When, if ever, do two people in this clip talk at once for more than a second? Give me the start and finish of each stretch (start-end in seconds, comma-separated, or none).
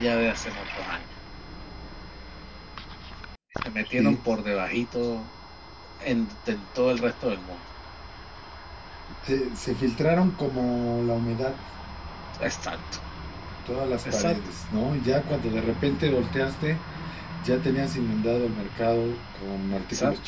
none